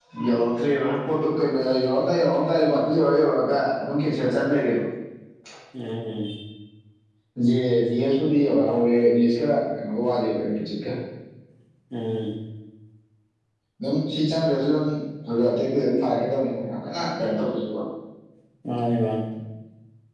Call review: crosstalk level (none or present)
none